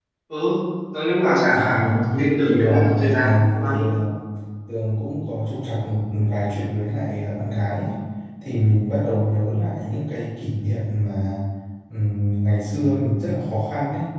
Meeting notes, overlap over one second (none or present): present